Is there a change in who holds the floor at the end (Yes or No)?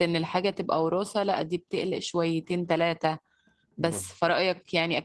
No